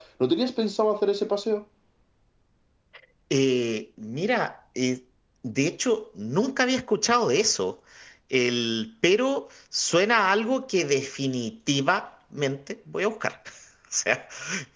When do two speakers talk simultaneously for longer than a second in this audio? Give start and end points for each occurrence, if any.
none

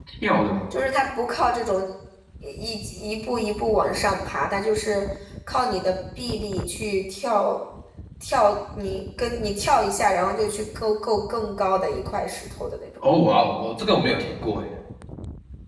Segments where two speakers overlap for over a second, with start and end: none

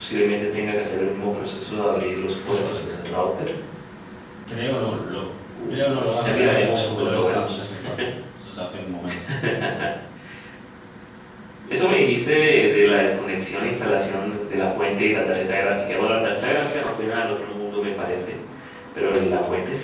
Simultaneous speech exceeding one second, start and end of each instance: 5.7-7.6

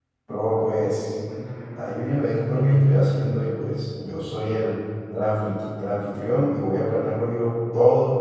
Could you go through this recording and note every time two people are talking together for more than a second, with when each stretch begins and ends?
1.8-3.0

